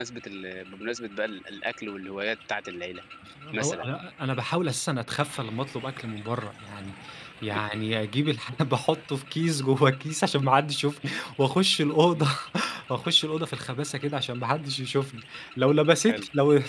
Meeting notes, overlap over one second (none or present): none